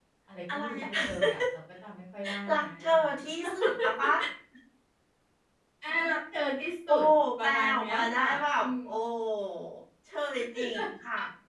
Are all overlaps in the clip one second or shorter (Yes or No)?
No